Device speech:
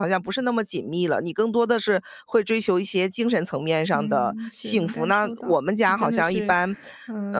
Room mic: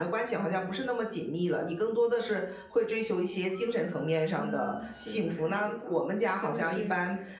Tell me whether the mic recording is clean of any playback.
No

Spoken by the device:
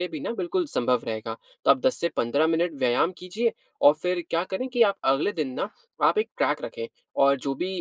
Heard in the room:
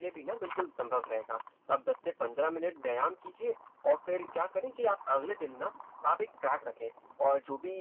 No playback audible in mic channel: No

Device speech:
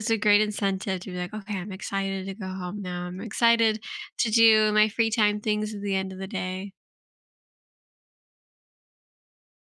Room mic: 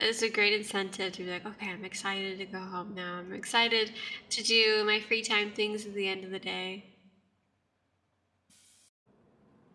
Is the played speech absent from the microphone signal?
No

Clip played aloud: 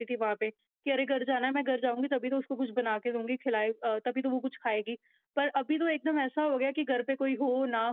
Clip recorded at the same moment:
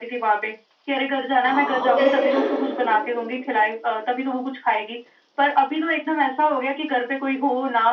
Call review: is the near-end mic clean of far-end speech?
No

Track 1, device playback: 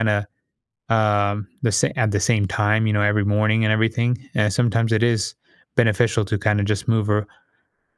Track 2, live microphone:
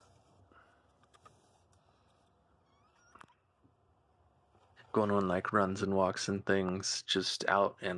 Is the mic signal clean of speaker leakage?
Yes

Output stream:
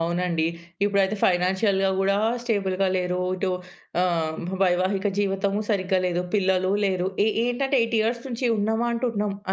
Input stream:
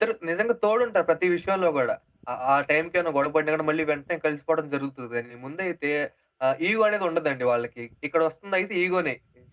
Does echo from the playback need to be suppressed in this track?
No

